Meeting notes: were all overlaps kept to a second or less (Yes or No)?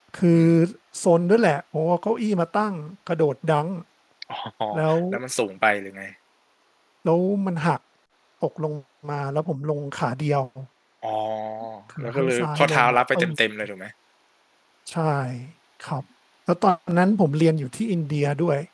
No